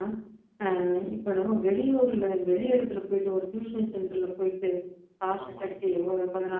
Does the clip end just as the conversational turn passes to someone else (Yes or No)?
No